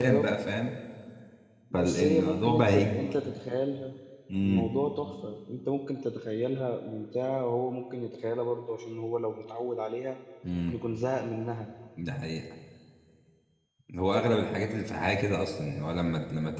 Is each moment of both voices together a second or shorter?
No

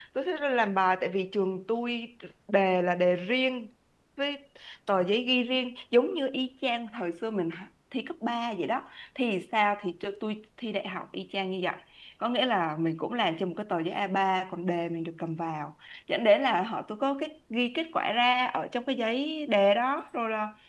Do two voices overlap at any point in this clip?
No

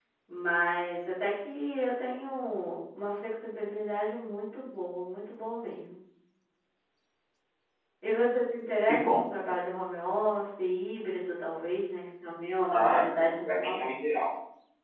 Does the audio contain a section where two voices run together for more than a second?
Yes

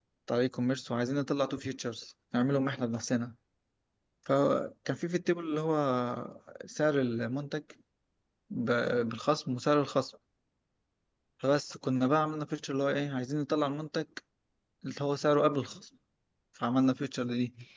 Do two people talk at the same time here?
No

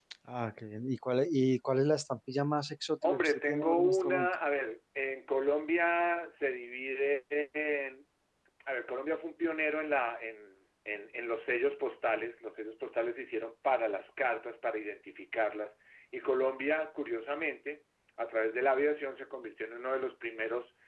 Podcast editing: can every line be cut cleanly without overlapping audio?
No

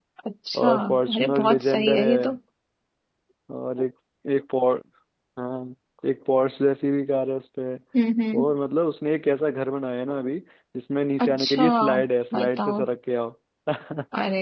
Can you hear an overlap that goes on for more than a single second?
Yes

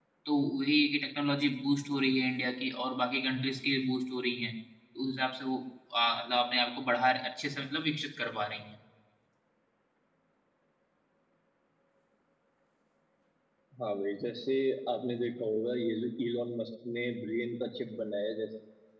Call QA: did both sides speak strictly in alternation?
Yes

